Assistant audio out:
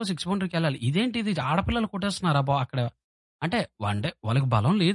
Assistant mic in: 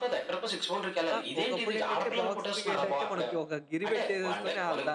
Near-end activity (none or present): present